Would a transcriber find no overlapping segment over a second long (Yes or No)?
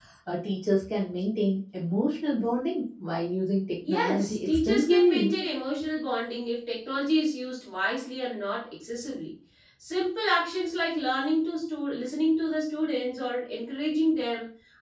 No